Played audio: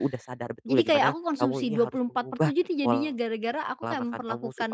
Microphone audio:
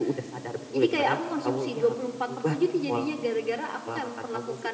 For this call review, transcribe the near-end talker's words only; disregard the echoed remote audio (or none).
none